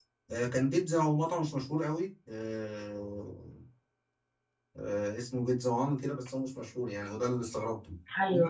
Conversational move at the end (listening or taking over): listening